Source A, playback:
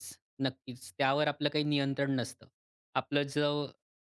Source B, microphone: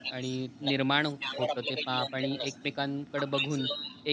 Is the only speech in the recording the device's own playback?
No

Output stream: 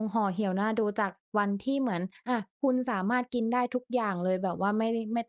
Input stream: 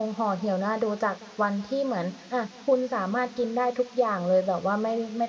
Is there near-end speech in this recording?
No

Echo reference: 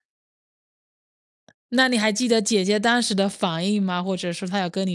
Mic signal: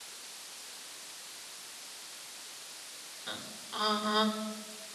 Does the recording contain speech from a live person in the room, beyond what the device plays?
Yes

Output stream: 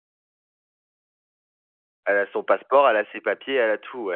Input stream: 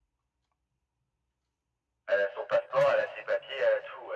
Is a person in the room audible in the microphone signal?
No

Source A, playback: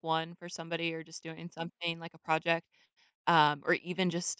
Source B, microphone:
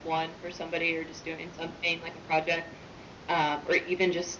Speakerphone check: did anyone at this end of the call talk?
No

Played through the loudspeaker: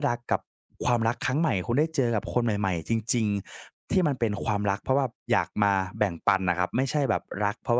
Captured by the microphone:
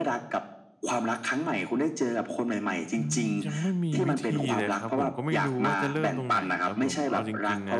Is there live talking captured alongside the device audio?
Yes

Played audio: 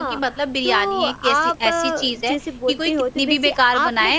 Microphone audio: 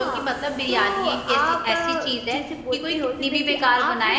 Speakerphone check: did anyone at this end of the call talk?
No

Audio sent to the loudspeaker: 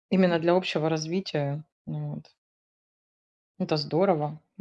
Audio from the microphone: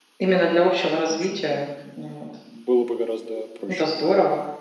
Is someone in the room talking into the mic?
Yes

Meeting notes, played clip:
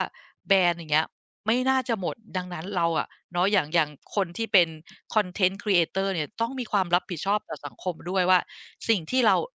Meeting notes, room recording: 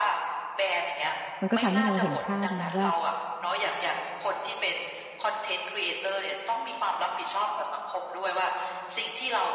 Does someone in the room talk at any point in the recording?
Yes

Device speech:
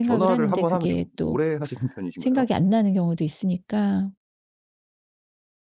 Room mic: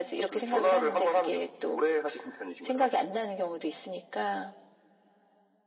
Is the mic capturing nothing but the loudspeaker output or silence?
Yes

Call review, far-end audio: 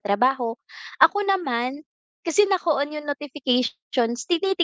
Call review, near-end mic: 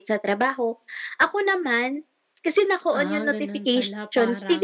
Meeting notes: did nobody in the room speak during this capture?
No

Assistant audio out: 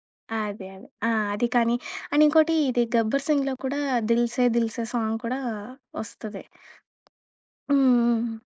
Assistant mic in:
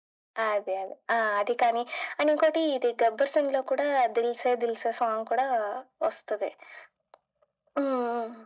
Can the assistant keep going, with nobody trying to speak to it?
Yes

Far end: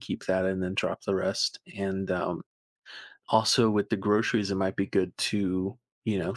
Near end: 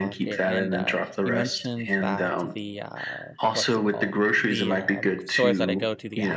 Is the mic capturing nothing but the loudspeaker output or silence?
No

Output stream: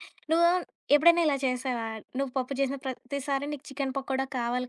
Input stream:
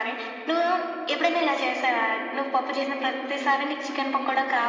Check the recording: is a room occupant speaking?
Yes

